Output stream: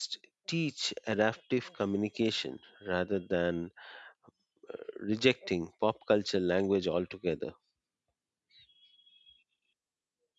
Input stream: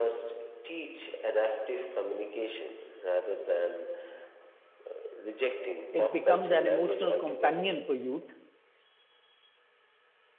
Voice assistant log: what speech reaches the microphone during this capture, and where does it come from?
both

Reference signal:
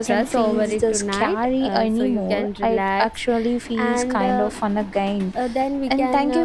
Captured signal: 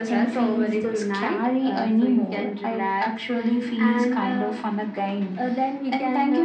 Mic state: echo only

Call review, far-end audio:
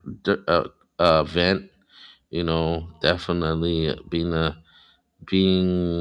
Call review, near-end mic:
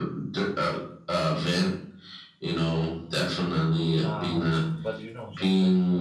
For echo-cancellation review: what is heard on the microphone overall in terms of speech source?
both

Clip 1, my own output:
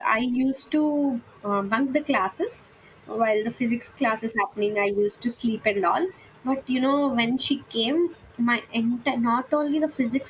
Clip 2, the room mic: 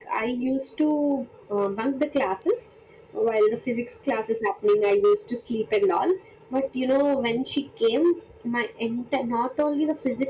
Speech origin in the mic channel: echo only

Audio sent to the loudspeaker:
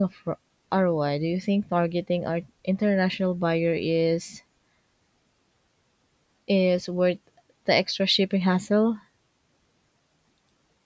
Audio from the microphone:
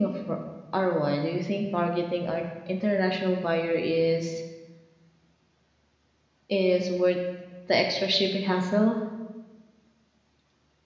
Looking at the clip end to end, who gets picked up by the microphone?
echo only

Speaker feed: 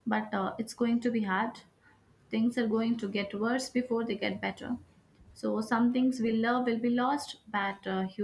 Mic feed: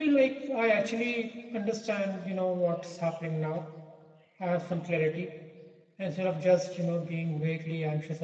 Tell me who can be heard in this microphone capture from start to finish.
user only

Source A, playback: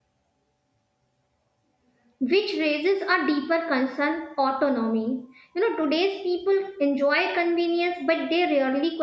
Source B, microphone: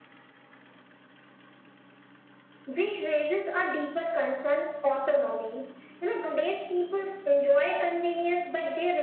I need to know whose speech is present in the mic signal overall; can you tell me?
echo only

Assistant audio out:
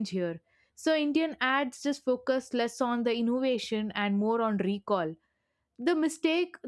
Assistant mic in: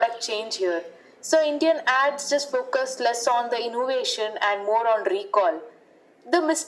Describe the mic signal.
echo only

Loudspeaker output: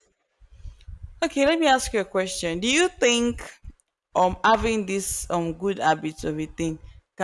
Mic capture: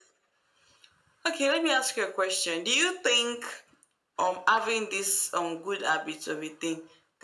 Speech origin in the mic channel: echo only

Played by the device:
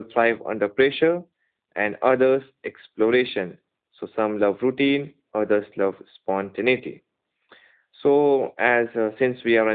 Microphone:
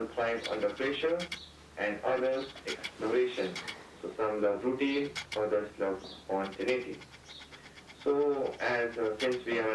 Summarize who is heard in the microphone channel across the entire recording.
echo only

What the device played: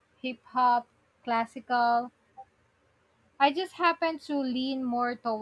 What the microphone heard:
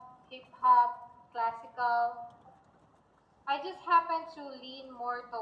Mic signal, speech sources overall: echo only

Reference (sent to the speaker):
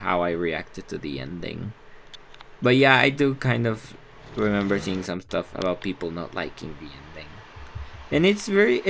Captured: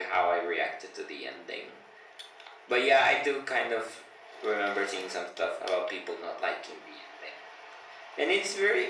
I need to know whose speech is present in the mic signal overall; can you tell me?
echo only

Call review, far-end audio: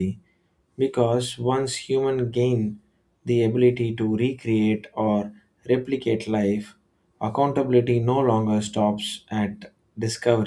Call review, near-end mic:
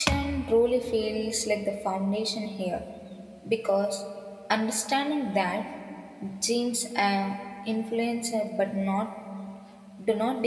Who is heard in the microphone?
user only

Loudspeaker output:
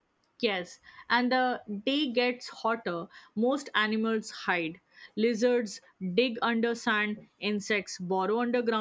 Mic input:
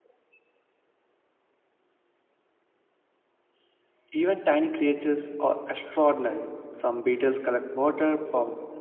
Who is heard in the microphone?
user only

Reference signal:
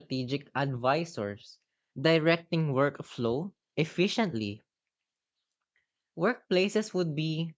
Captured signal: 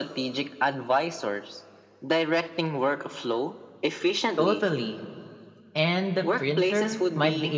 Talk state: both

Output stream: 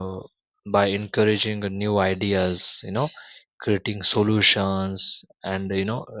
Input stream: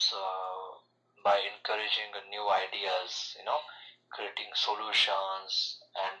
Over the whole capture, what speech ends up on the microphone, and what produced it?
echo only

